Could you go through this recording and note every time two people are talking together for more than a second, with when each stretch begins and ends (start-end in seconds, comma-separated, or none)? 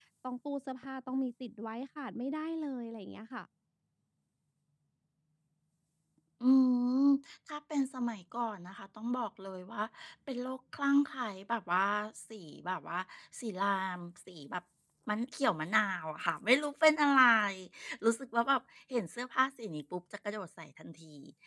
none